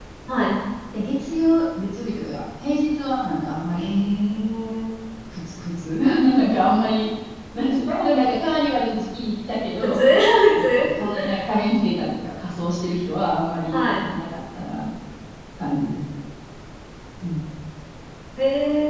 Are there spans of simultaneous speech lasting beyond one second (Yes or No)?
No